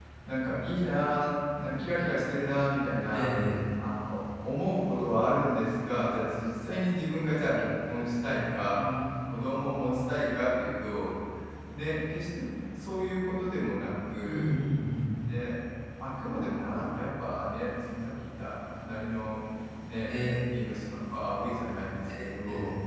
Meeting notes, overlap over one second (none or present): none